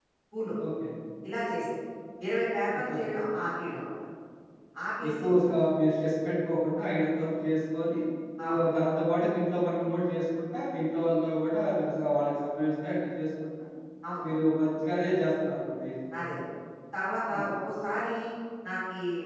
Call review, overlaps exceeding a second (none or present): none